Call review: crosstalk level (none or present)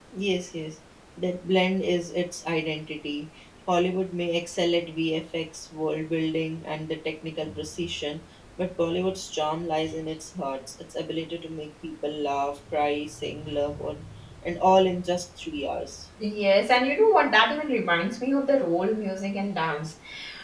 none